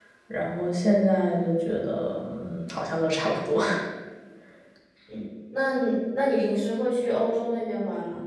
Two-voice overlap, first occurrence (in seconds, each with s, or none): none